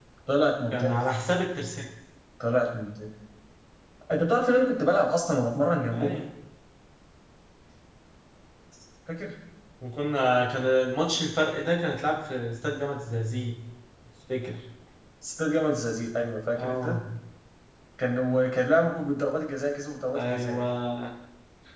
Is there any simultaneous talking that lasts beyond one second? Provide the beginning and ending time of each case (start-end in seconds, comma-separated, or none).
none